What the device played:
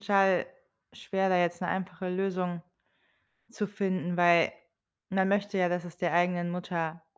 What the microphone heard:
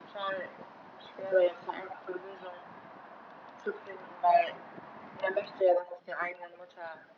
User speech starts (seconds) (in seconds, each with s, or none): none